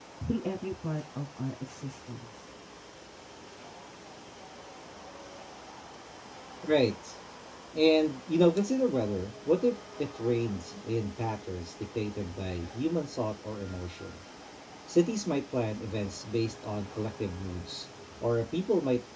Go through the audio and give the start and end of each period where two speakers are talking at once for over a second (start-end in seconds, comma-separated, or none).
none